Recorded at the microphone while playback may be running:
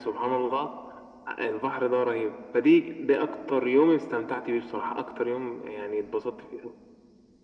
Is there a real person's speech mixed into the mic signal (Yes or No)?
No